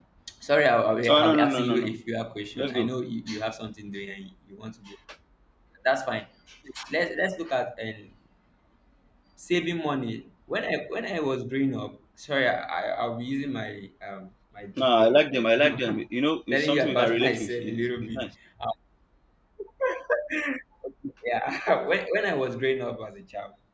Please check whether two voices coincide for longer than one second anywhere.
Yes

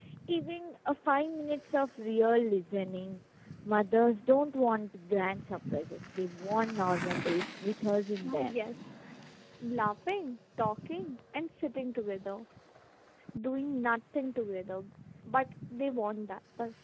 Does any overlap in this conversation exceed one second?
No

